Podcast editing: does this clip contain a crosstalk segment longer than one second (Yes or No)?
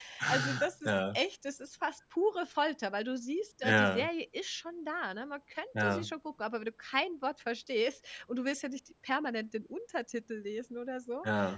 No